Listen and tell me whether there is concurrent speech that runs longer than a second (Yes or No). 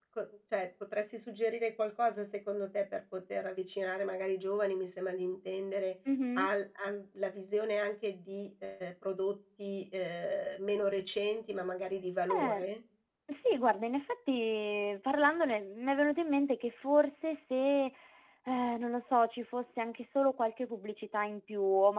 No